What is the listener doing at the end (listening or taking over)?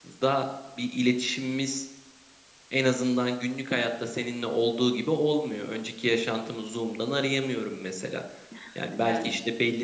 listening